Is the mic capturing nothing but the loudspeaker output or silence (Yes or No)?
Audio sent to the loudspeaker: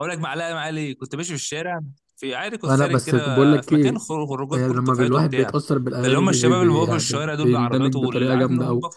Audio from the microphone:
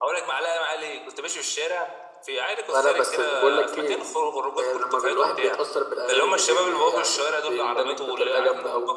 Yes